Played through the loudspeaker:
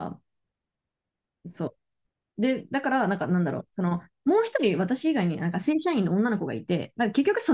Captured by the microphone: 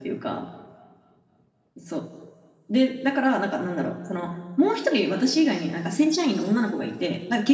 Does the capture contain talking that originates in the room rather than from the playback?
No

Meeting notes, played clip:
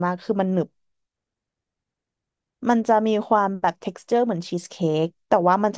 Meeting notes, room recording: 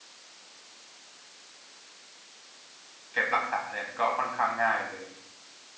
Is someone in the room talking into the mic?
Yes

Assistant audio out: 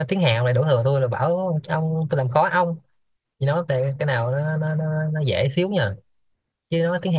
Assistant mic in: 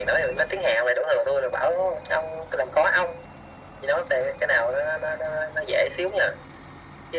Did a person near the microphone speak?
No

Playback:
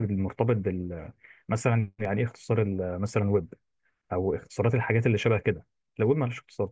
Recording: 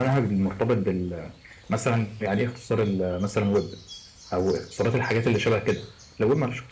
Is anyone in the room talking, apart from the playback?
No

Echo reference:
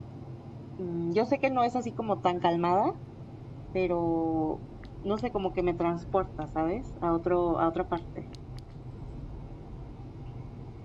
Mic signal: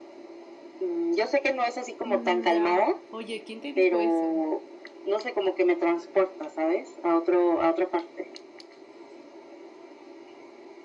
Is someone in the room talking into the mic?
Yes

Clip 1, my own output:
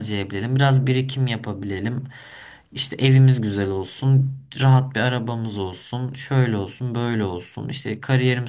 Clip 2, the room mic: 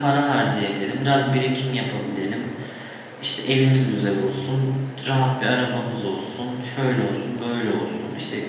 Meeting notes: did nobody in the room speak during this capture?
Yes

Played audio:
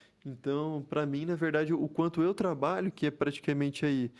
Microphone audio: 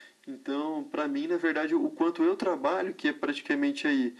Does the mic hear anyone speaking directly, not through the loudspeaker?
No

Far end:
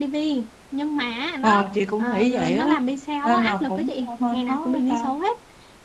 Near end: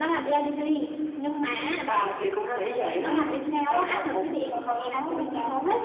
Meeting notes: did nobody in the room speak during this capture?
Yes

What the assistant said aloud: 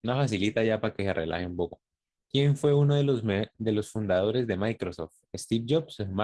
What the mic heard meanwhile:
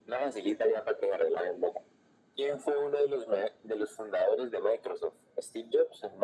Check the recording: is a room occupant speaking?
No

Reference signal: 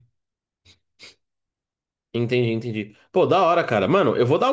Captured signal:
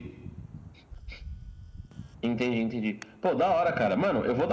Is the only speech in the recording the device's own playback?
Yes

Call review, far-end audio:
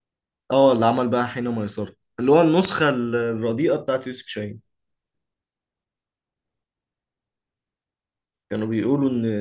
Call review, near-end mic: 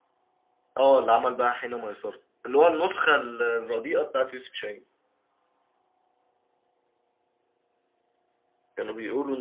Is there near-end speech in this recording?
No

